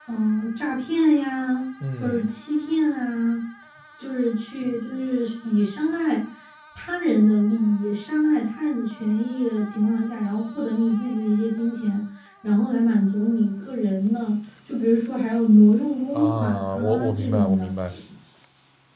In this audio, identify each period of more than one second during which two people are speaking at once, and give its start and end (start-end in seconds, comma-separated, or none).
16.1-17.7